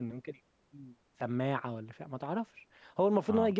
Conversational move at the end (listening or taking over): listening